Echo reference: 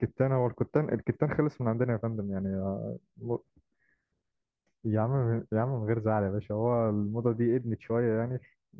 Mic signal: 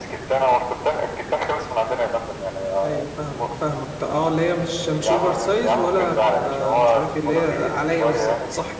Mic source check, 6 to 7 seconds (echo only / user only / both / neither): both